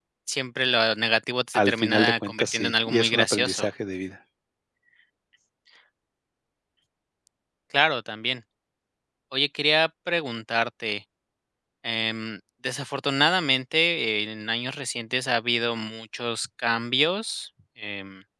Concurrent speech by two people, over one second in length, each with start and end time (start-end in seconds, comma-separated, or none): 1.5-3.7